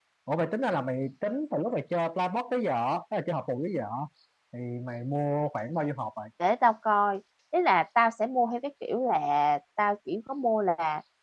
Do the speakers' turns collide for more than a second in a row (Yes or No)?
No